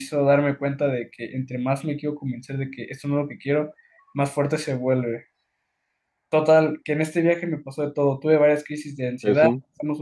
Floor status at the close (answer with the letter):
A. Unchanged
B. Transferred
A